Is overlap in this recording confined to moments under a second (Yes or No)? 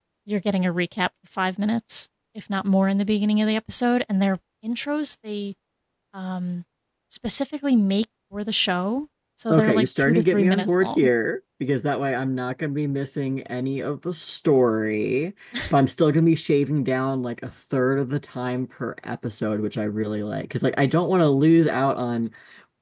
No